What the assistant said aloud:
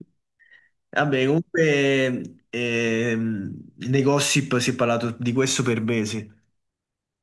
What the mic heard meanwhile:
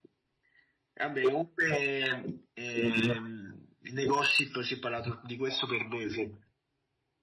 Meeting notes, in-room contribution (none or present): none